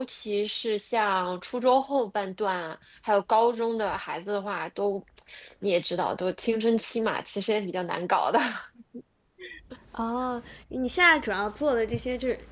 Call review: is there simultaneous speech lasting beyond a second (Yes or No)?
No